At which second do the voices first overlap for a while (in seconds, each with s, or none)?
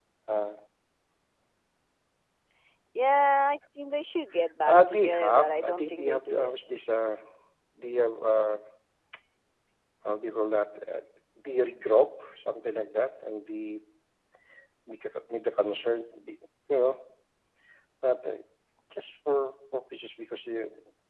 4.6 s